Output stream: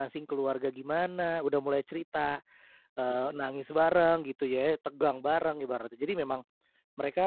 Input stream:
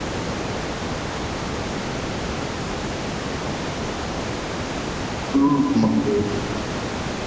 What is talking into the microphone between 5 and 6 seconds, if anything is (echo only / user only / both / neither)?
user only